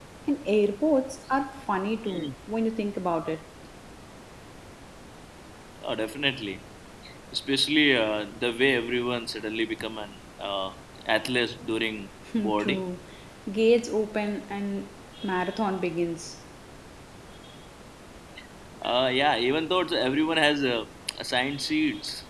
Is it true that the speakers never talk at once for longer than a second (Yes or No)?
Yes